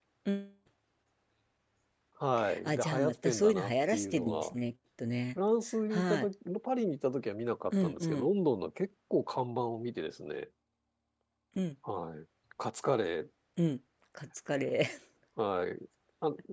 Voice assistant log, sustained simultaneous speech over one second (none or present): present